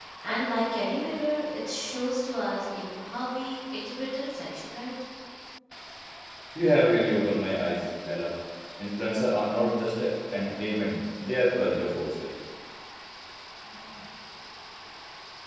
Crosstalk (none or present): none